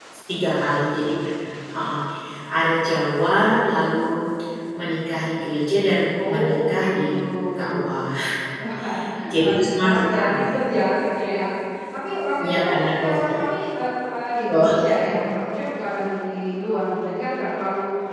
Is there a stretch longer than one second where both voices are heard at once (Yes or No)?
Yes